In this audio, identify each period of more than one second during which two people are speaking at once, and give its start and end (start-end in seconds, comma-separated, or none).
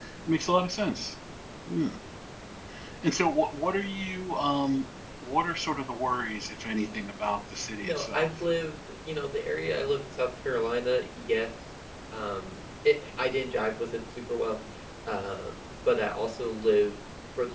none